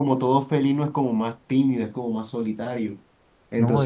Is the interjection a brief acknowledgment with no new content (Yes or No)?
Yes